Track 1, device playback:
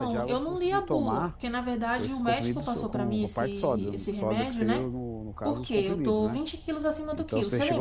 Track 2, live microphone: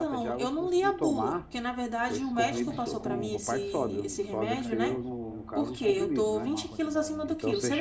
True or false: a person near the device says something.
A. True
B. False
A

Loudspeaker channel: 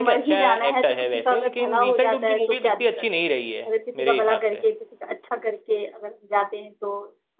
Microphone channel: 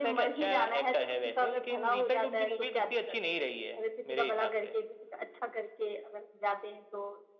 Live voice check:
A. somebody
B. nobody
A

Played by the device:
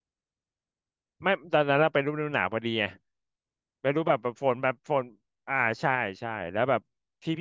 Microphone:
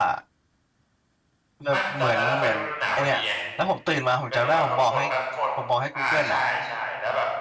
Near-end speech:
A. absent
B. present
B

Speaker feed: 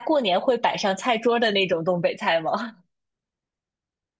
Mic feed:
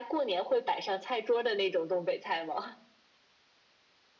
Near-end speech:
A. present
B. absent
B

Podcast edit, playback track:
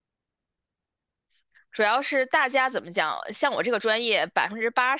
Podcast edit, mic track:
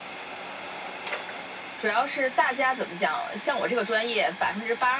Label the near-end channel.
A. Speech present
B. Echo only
B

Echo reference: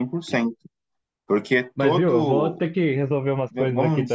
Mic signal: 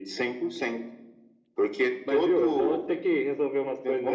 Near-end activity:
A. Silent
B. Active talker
A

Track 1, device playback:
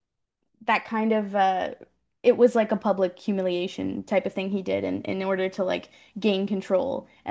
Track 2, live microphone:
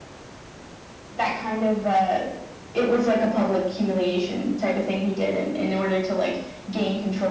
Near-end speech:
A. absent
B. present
A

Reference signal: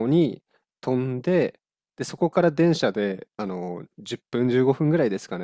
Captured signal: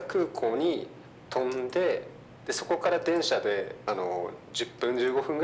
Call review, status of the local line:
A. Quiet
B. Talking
A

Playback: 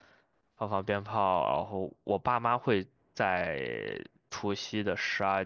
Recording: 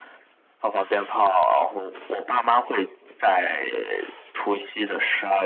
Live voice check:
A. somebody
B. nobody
B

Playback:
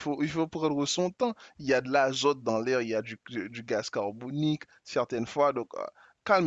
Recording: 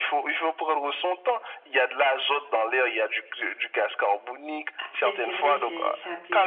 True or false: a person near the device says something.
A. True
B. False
A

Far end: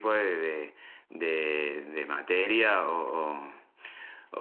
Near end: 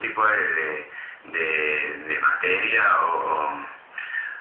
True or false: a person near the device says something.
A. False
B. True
A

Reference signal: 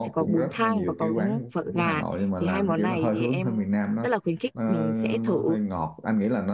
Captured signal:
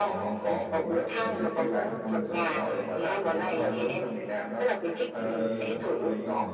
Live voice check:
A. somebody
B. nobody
A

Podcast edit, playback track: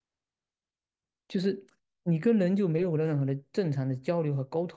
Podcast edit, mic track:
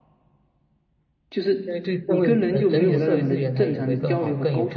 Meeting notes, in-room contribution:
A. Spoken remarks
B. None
A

